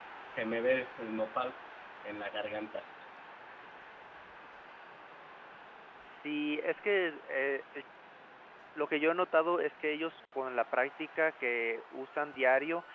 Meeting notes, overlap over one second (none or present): none